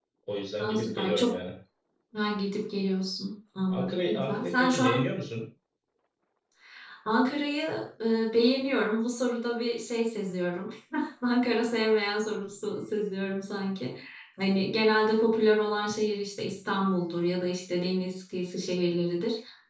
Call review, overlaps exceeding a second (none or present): present